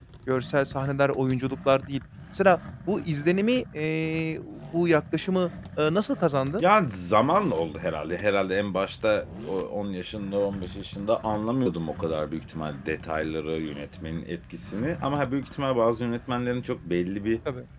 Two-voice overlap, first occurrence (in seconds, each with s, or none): none